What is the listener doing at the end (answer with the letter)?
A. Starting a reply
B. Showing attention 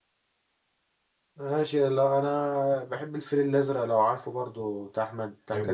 A